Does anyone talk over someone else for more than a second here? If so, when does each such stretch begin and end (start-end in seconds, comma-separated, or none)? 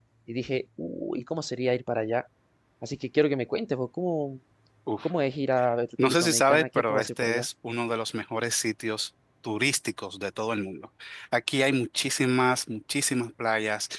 6.0-7.5